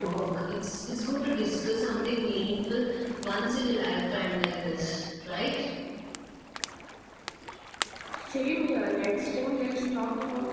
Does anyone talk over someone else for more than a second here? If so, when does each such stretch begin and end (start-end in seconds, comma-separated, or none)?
none